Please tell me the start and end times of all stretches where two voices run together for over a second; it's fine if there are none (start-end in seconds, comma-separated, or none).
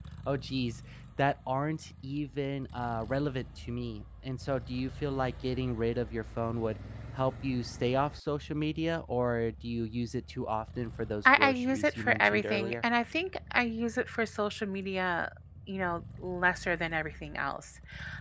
11.2-12.8